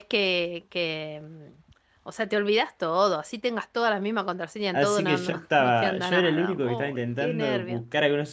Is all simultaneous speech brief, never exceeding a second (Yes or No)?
No